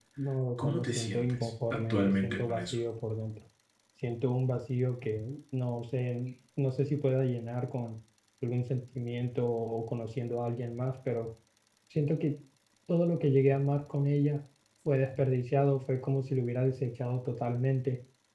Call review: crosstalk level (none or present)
present